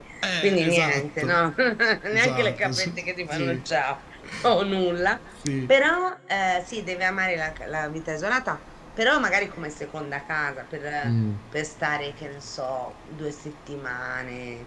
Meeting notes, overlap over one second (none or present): present